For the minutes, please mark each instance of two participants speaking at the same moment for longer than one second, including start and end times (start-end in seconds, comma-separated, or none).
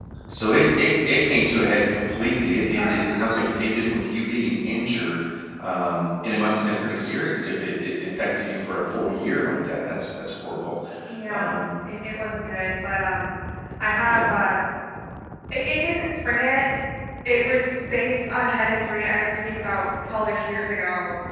none